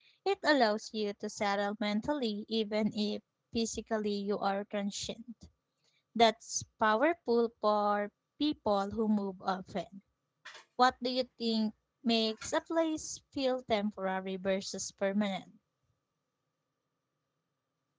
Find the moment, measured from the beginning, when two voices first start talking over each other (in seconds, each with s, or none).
none